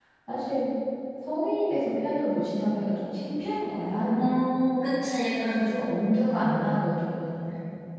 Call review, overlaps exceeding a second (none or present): none